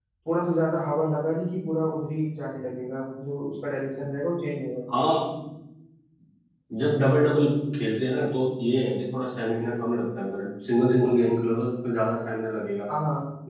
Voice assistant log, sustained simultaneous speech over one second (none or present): none